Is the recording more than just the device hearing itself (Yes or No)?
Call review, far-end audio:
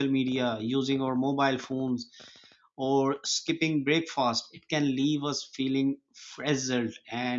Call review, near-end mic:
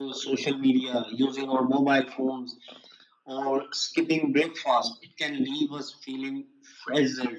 No